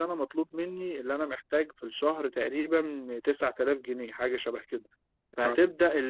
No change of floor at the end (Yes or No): Yes